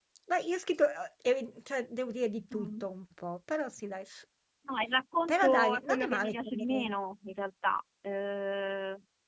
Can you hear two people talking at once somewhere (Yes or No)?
Yes